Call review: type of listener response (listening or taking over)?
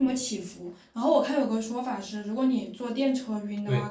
listening